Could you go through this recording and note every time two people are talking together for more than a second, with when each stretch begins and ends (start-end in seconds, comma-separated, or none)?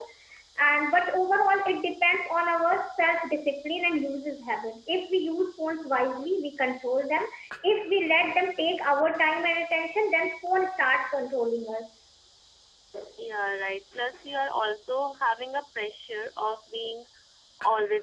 none